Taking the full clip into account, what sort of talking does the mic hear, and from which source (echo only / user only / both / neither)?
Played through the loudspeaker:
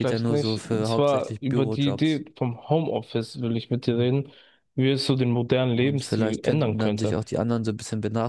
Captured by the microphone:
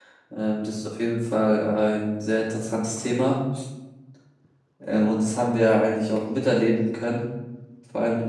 user only